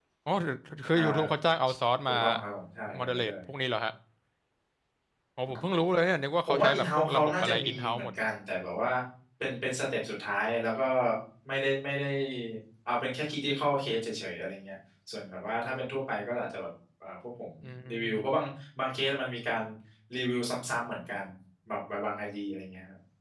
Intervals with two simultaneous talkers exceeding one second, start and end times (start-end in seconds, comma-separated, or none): 6.5-8.1